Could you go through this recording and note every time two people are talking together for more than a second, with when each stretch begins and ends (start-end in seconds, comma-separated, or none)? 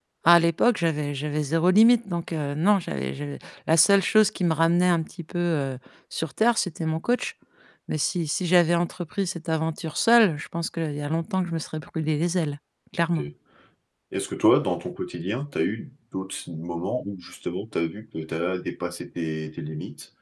none